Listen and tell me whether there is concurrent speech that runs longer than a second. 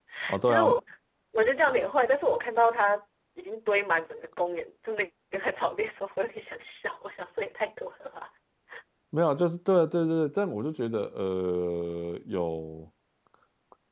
No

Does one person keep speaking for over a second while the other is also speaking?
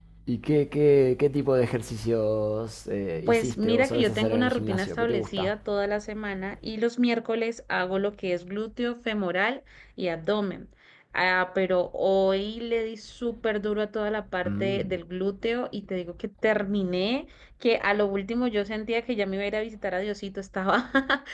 Yes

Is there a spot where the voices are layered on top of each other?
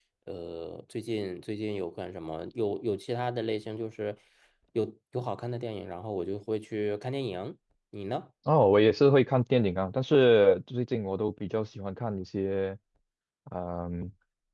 No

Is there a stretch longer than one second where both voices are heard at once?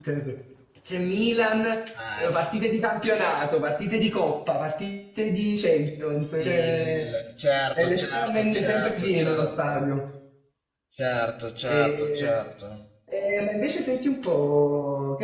Yes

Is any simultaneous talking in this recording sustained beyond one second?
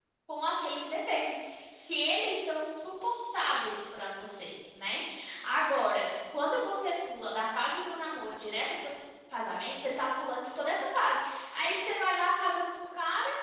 No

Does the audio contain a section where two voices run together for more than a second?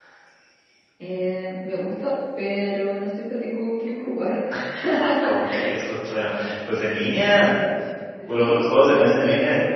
Yes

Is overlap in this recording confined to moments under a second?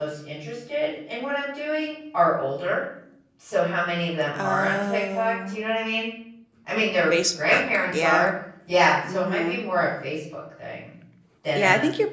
No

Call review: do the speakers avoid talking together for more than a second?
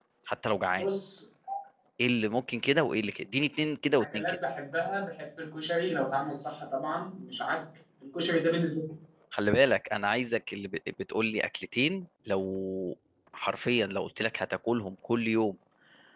Yes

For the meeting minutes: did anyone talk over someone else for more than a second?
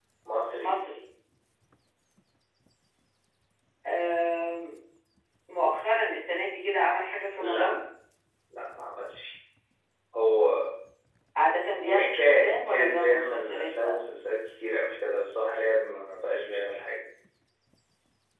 Yes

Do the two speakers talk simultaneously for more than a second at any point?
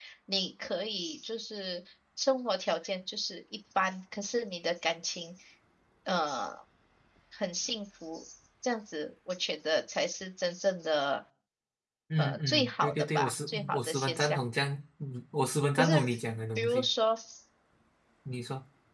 Yes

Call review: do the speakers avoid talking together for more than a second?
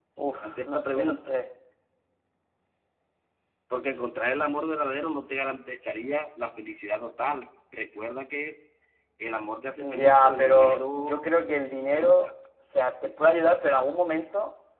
No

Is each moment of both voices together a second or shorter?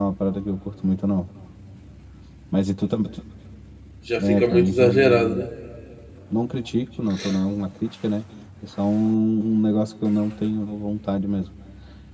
No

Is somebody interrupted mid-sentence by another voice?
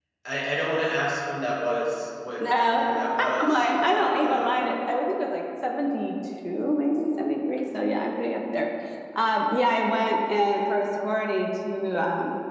Yes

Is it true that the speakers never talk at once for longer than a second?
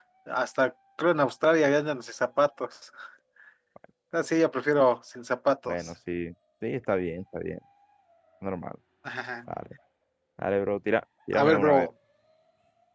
Yes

